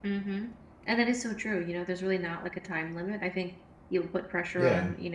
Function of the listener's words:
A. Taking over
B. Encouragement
B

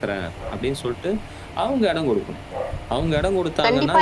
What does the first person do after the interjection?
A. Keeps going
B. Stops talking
B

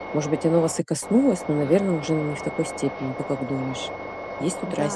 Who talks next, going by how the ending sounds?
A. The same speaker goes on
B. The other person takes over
B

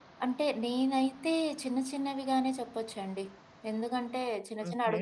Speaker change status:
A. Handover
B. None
B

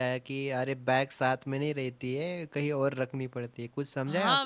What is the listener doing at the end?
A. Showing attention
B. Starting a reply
B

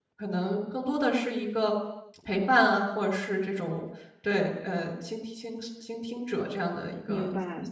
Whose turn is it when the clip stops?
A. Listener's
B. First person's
A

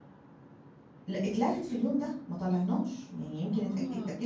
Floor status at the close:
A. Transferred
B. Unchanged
B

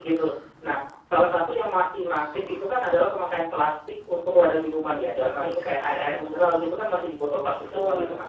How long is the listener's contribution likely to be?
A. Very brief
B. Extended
A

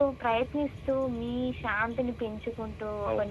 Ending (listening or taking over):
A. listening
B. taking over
A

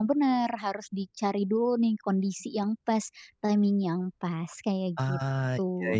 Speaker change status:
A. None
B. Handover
B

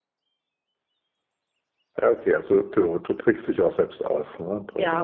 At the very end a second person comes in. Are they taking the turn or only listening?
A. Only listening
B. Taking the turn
B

